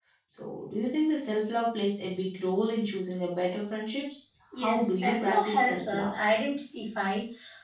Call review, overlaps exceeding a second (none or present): present